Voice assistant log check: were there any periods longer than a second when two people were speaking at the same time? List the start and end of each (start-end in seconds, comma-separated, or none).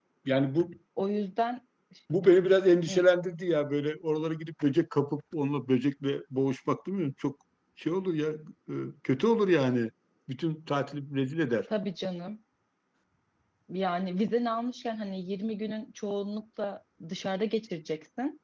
none